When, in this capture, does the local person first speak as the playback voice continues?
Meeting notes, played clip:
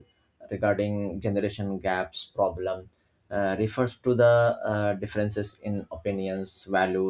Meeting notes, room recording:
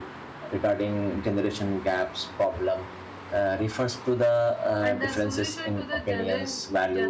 4.8 s

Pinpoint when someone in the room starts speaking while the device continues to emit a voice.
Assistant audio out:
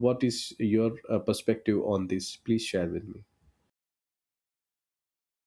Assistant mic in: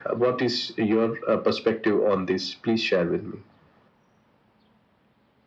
none

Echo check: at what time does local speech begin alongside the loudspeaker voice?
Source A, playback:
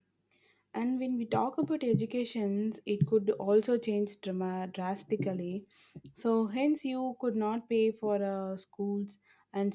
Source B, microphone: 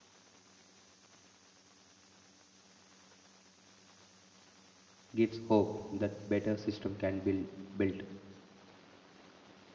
5.2 s

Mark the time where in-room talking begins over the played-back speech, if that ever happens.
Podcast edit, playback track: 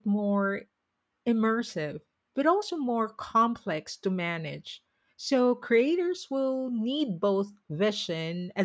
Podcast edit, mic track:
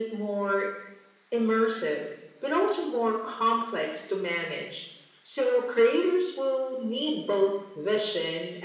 none

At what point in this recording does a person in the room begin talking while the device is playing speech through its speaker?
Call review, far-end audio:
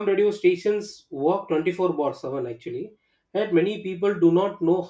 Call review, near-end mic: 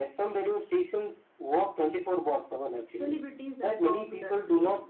2.7 s

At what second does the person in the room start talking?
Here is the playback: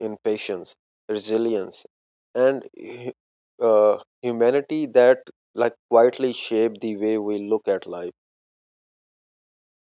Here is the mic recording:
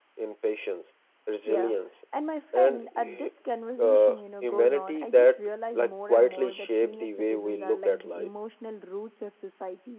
1.4 s

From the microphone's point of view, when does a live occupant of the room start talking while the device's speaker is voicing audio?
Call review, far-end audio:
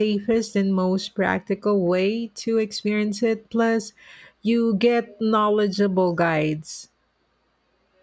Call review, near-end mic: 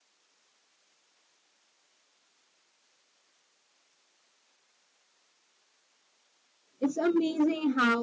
6.8 s

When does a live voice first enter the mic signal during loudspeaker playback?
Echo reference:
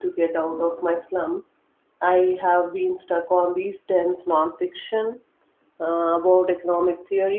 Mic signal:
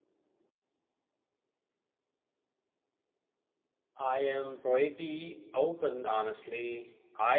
4.0 s

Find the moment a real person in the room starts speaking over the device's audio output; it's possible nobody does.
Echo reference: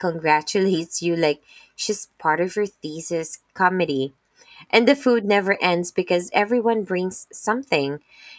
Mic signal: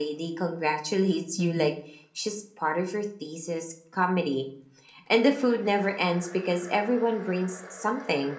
1.4 s

